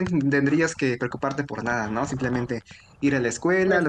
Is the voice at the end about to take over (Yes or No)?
No